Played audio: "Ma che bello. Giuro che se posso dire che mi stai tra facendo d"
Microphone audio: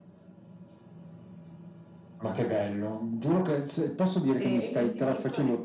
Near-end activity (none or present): present